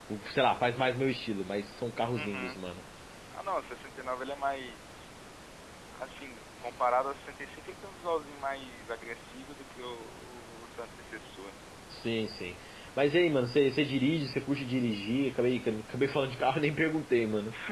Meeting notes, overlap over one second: none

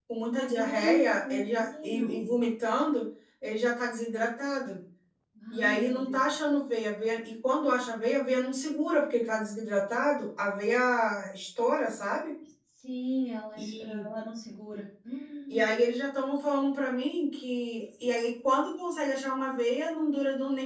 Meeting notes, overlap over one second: present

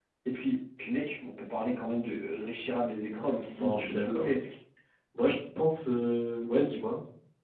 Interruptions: present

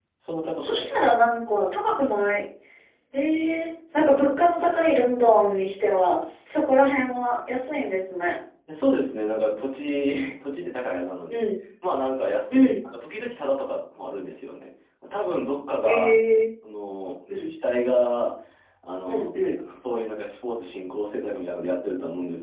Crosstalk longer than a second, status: none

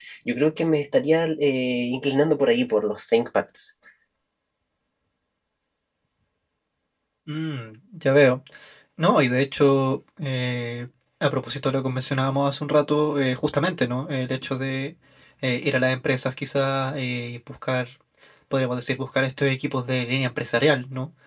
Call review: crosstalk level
none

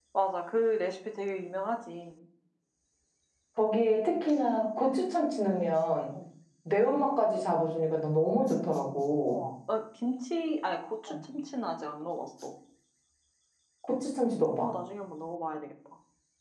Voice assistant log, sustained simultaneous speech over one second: none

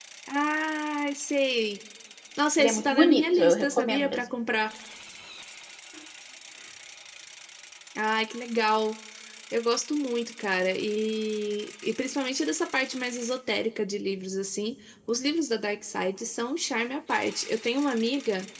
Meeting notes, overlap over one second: present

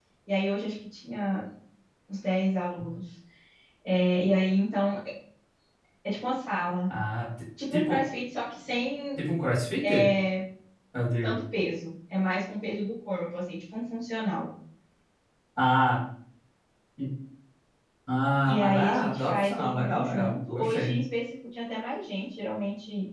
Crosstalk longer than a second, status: present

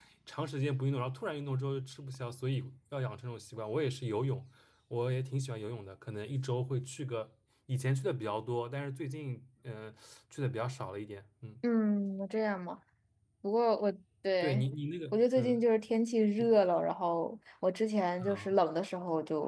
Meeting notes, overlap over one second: none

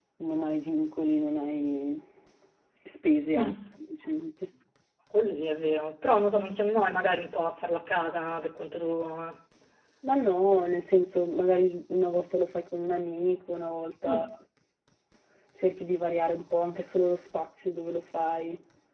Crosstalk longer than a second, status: none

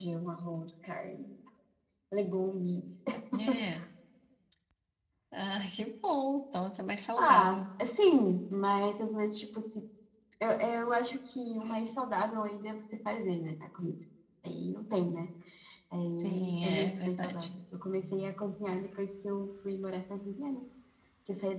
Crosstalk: present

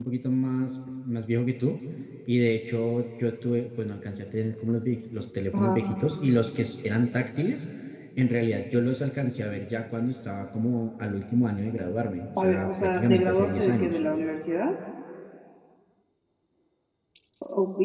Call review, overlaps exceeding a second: present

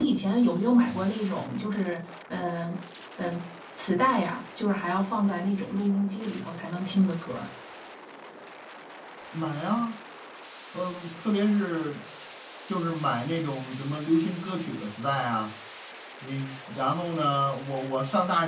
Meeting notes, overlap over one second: none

